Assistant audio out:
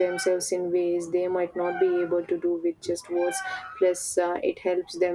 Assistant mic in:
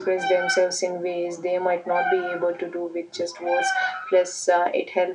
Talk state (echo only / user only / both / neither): echo only